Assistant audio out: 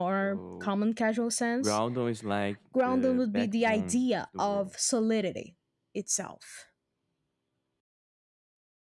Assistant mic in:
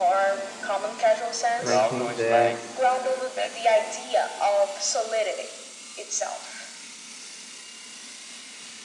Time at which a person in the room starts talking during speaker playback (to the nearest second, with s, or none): 2 s